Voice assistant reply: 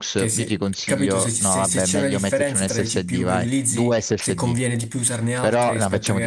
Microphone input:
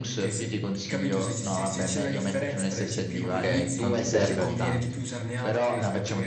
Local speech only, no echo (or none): ok? Non ti serve a tanto.